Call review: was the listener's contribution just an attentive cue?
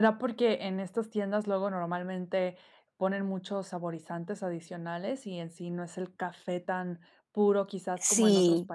No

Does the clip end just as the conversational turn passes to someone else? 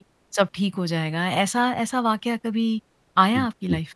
Yes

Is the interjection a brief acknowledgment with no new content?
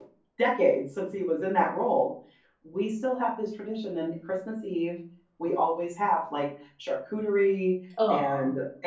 Yes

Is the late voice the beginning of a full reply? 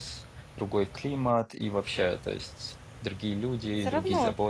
Yes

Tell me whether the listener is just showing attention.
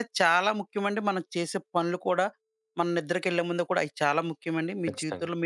Yes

